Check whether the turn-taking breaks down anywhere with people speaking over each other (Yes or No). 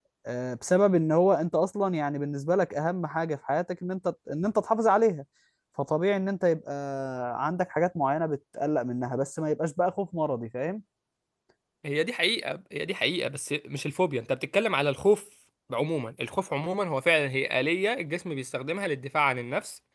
No